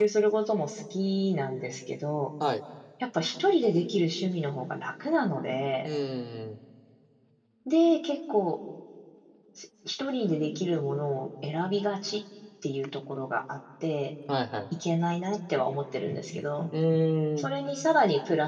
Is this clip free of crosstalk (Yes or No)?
Yes